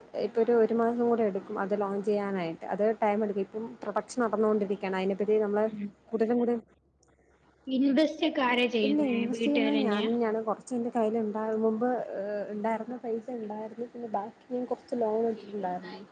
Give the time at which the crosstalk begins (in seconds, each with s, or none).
8.8 s